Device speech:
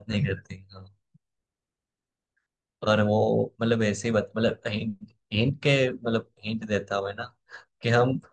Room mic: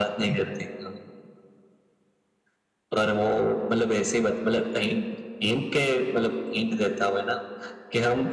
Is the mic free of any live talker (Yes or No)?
Yes